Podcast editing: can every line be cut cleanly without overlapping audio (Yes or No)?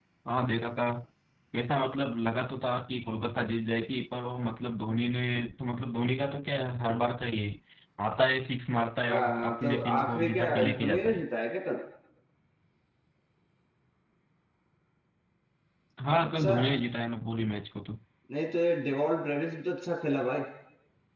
No